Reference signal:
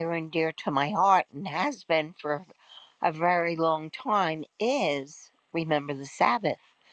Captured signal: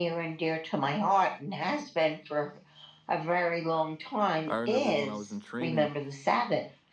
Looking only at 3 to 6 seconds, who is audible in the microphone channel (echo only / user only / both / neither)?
both